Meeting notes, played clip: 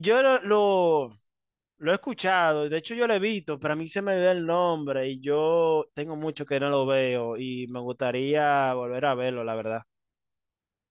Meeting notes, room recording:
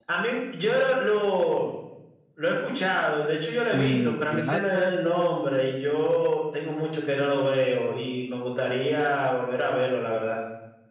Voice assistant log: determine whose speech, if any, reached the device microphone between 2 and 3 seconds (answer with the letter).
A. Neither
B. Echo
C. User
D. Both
B